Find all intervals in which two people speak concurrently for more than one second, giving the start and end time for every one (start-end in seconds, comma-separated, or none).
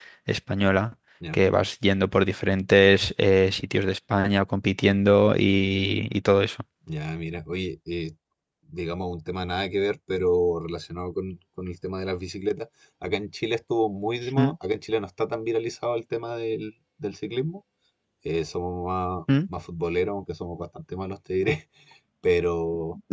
none